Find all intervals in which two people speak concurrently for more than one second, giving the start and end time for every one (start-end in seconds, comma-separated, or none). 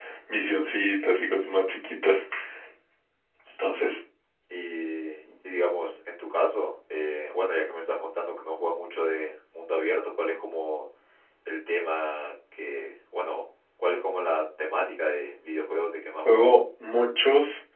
none